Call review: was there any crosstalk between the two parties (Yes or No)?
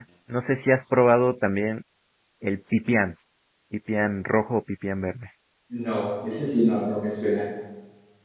No